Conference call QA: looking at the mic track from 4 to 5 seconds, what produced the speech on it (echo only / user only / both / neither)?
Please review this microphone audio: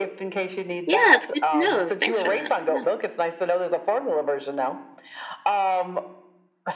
echo only